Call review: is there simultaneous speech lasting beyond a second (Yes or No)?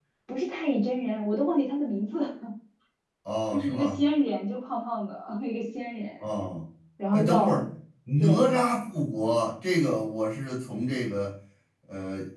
No